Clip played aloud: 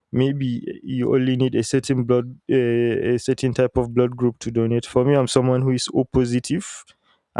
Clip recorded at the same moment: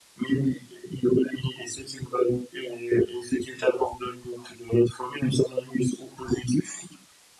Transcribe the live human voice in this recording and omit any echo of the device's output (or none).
none